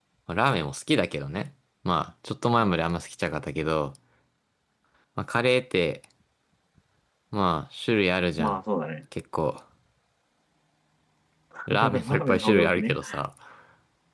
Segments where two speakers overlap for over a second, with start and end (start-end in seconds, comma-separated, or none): 11.7-13.0